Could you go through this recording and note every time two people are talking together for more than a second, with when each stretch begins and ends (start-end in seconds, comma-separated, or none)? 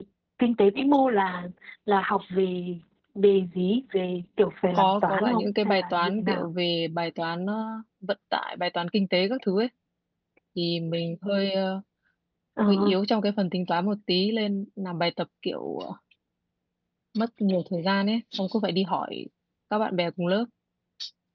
4.8-6.5